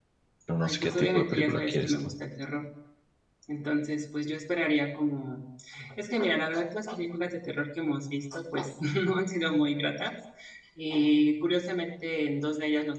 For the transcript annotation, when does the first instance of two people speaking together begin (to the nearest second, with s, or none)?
1 s